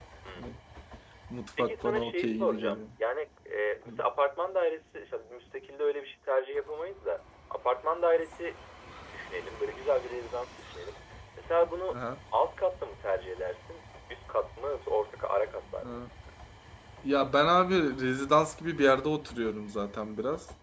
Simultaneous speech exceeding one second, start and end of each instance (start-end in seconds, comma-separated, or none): 1.6-2.8